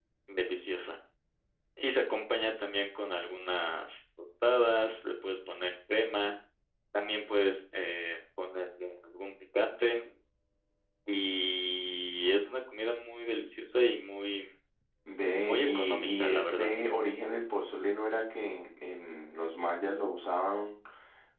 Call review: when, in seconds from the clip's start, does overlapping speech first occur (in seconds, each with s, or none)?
15.4 s